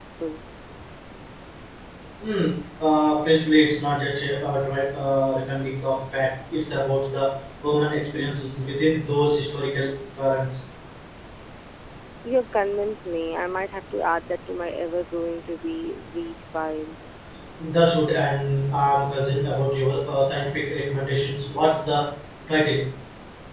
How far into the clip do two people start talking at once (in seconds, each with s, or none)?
none